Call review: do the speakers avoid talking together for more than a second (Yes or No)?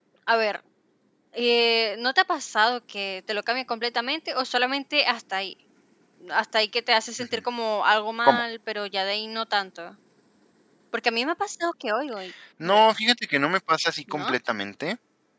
Yes